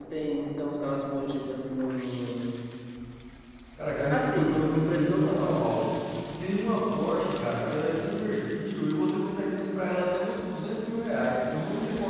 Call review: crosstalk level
present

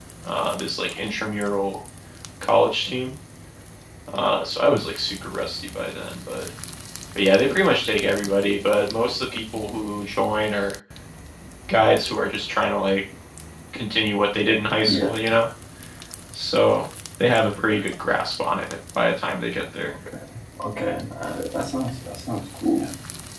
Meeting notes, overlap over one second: none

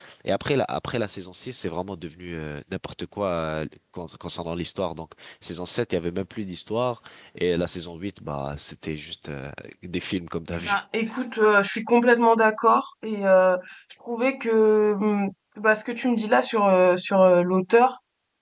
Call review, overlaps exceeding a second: none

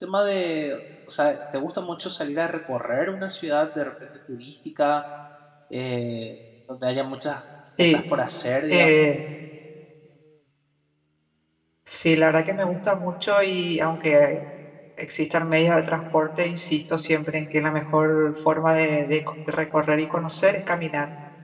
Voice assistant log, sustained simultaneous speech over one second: none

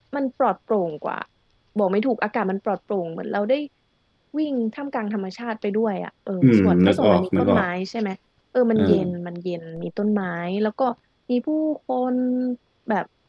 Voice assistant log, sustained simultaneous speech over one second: present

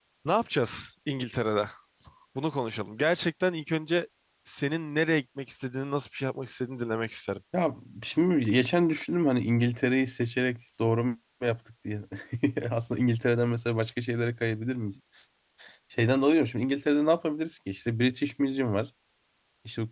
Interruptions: none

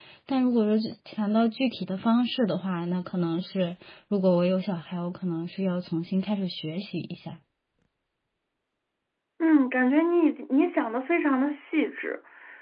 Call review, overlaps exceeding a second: none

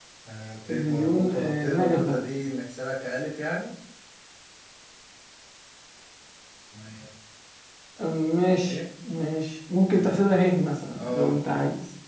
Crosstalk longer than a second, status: present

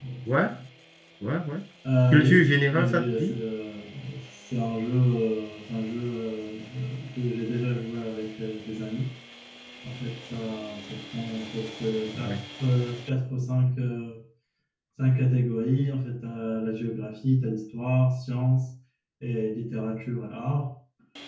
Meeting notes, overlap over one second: present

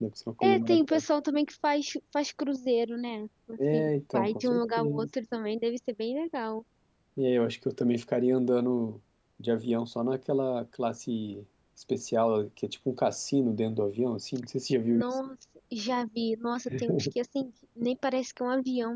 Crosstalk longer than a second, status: present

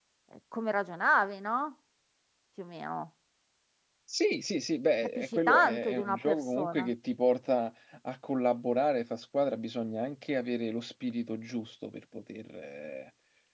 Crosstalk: present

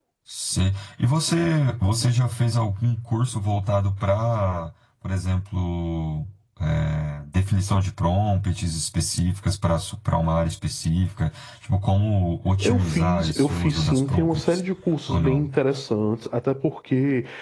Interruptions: present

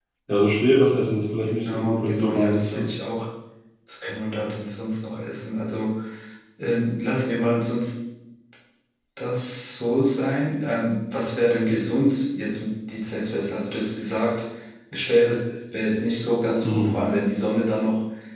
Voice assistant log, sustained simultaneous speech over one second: present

